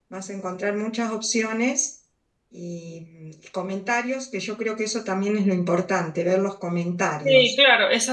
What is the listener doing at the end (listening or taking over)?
taking over